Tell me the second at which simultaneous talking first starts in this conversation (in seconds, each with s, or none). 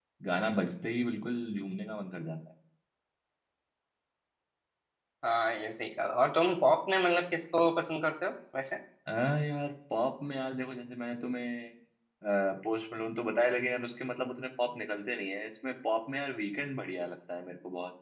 none